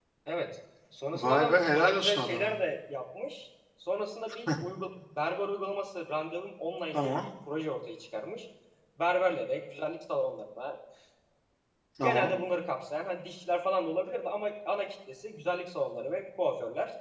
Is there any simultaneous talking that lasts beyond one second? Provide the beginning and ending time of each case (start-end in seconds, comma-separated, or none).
1.2-2.5